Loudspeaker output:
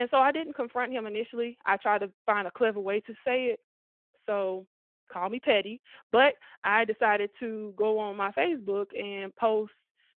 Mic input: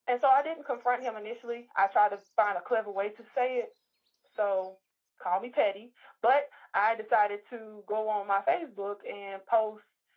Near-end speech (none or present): none